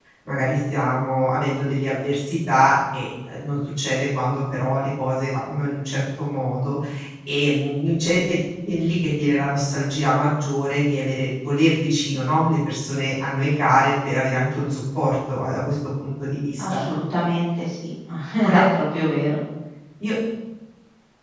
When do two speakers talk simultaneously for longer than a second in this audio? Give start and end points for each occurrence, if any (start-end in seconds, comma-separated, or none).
none